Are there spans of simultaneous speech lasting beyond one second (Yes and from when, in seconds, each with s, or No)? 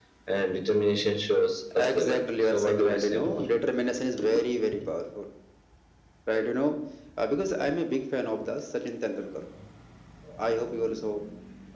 Yes, from 1.7 s